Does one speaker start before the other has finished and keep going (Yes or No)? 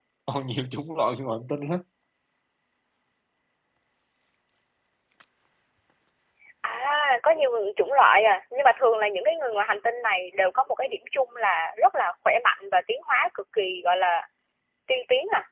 No